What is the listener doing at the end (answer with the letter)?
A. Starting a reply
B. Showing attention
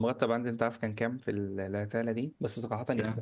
B